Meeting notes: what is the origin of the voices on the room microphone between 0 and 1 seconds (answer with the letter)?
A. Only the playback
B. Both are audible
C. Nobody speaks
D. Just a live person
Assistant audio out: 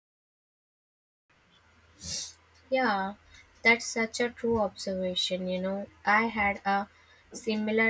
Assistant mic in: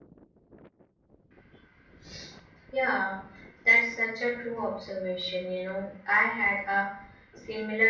C